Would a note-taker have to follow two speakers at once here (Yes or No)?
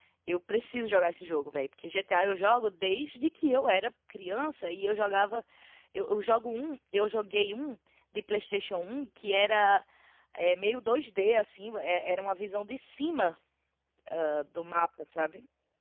No